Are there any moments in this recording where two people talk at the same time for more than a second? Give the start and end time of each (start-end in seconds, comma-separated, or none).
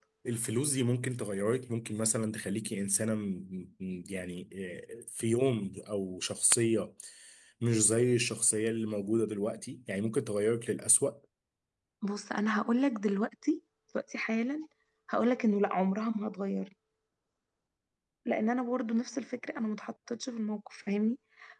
none